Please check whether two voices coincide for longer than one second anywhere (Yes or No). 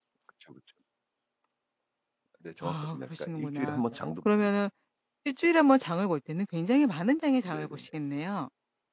Yes